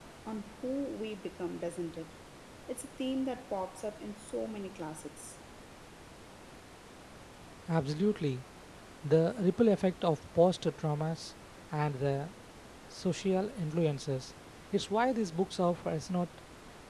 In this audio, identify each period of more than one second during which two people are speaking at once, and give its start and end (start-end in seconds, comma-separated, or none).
none